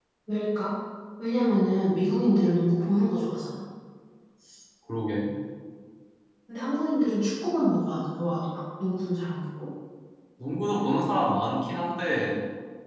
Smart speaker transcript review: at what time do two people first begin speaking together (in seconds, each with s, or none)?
none